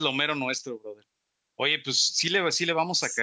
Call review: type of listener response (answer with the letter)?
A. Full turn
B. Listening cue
B